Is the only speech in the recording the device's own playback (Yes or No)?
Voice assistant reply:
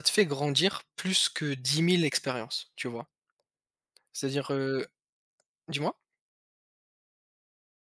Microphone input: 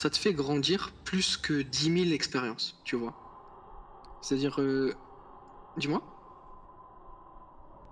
Yes